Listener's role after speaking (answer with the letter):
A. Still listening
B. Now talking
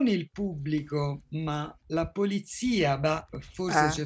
A